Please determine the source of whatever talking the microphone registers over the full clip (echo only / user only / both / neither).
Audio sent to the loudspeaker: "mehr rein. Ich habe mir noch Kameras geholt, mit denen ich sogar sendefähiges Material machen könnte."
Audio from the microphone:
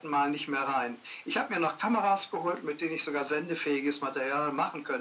echo only